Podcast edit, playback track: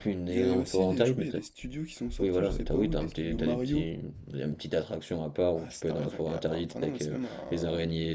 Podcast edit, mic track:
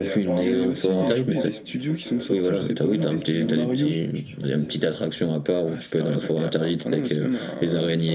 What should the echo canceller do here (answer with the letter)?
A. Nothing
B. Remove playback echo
B